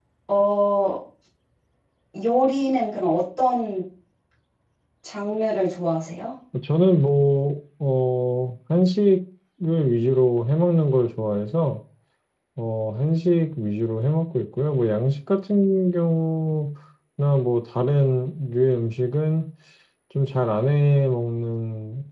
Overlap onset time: none

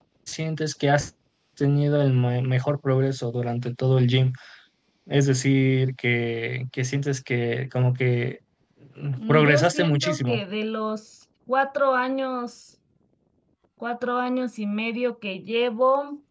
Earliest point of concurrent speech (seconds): 9.2 s

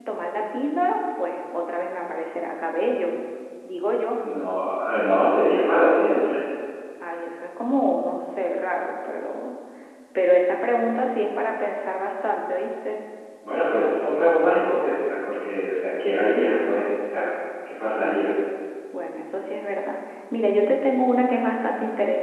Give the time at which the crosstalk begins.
none

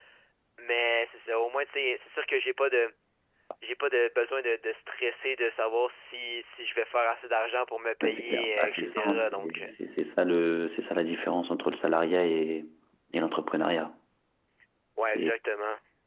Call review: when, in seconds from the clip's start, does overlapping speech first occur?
8.0 s

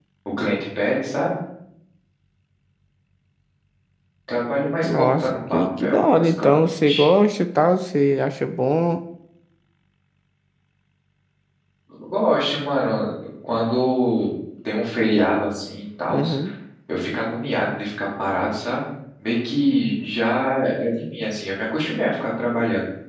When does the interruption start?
4.8 s

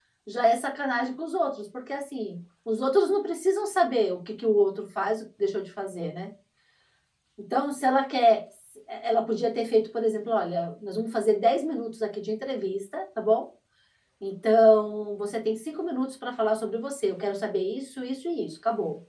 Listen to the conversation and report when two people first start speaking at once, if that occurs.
none

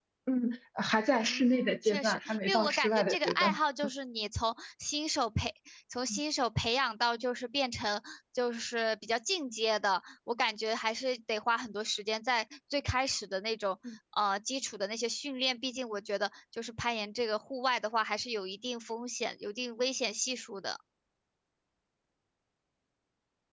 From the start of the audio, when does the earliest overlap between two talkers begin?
1.2 s

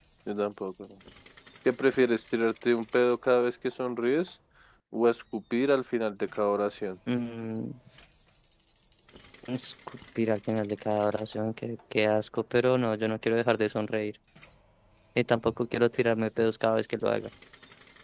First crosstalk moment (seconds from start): none

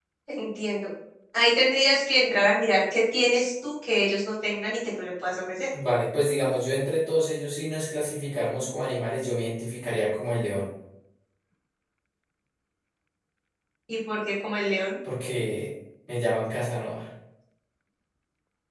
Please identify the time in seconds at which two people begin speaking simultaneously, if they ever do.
none

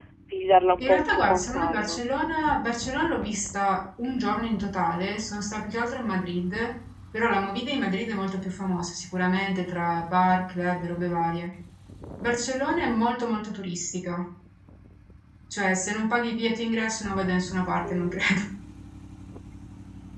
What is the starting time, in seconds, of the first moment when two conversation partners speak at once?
0.8 s

